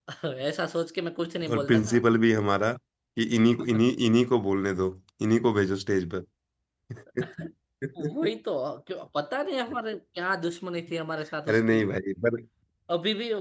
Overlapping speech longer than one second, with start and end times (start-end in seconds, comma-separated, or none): none